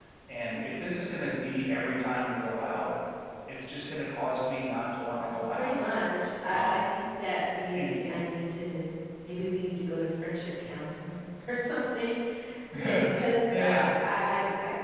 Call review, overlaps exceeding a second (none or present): none